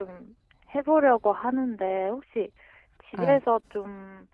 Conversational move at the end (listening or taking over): listening